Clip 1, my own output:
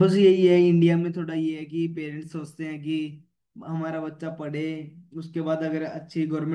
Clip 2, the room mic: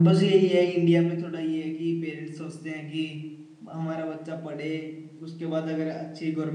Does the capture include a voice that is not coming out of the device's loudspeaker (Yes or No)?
No